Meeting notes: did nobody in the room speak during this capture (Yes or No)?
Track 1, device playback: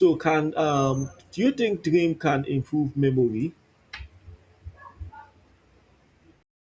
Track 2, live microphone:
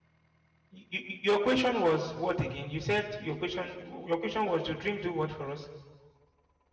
No